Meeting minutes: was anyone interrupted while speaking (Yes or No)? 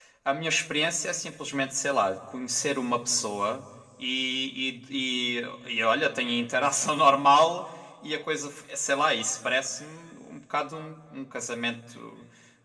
No